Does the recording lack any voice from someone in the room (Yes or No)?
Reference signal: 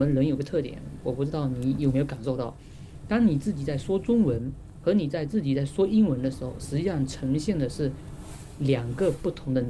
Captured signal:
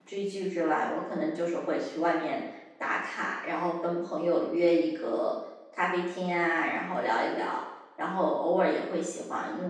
No